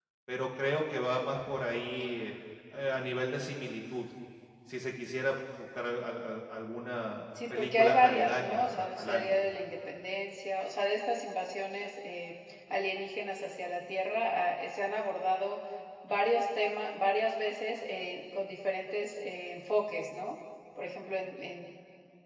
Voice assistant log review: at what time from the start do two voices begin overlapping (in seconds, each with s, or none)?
7.4 s